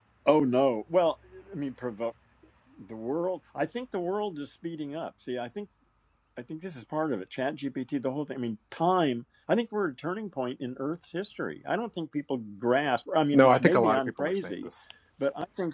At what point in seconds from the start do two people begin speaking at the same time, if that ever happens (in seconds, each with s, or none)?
13.3 s